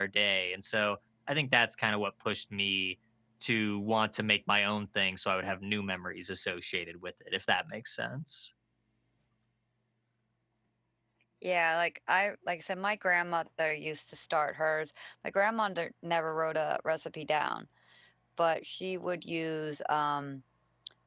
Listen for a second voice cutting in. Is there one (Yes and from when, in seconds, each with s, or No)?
No